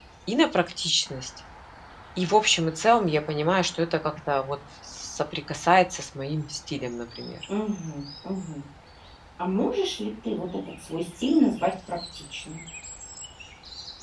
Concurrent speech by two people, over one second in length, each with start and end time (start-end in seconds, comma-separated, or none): none